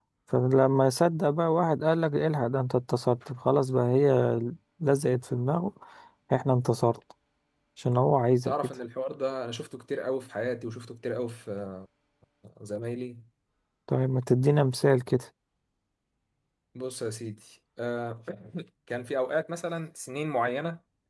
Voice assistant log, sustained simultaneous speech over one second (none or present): none